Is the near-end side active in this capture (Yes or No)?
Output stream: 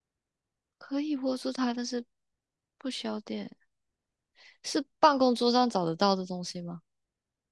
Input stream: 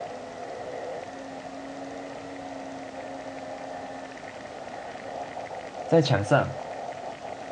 Yes